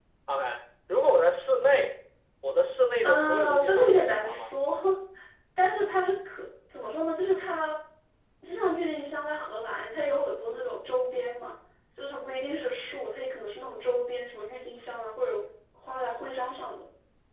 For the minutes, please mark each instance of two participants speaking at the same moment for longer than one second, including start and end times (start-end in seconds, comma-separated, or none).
3.0-4.5